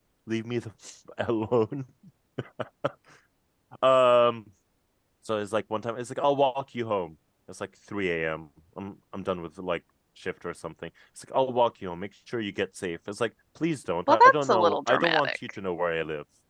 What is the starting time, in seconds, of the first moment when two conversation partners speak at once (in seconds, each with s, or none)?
14.1 s